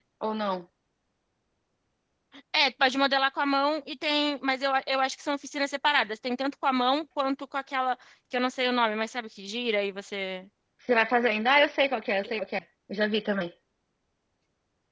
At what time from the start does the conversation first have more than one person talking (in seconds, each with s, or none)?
none